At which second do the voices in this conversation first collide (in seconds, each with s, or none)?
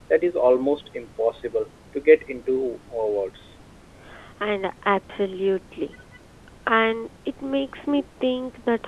none